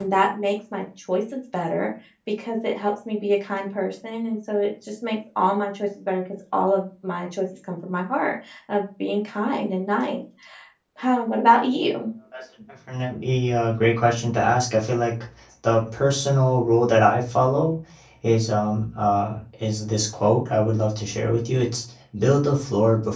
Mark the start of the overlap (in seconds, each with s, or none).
none